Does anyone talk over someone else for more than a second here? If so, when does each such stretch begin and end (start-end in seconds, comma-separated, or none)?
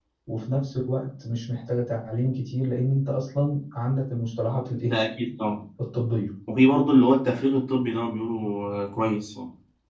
none